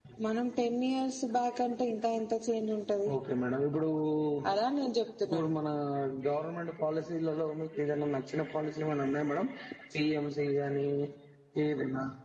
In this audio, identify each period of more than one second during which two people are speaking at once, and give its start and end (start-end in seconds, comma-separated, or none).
none